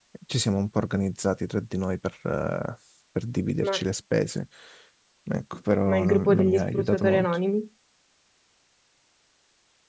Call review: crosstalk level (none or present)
present